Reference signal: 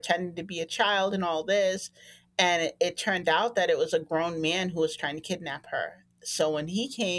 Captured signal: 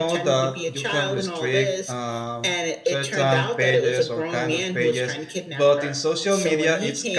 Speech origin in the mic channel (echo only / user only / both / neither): both